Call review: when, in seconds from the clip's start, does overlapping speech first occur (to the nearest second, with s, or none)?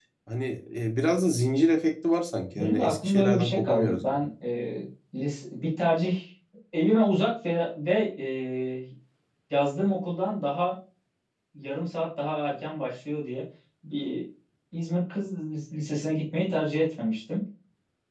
3 s